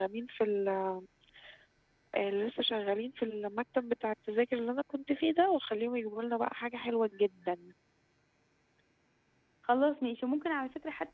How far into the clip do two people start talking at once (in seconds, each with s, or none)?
none